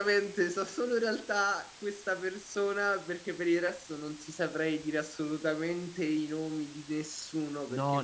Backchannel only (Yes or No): No